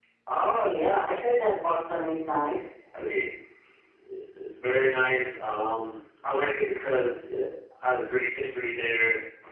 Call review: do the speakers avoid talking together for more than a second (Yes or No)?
Yes